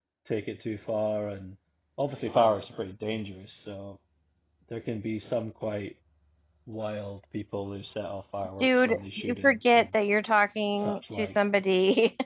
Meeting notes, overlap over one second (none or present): present